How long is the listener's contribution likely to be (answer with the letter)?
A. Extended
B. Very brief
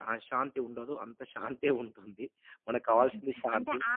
A